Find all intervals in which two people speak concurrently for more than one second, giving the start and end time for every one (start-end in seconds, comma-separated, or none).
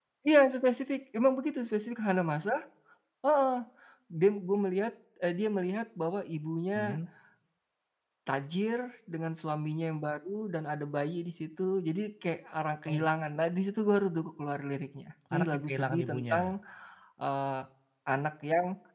15.3-16.6